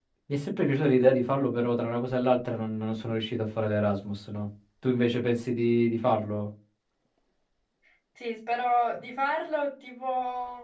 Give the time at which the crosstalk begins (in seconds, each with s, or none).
none